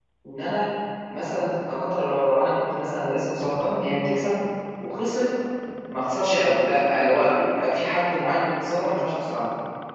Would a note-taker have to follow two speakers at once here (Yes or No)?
No